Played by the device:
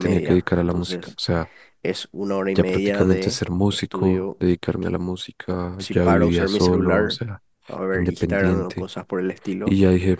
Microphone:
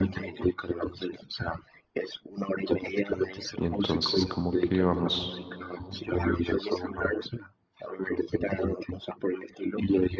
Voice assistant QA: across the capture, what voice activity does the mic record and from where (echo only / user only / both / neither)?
both